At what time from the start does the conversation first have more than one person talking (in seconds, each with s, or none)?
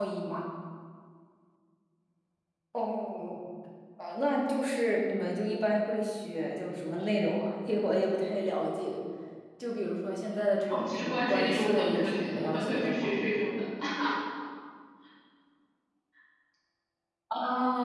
10.7 s